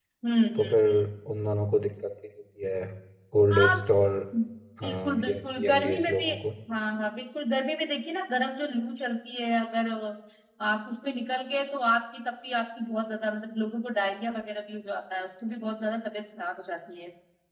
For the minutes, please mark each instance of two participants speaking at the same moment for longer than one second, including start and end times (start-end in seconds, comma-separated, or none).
4.8-6.3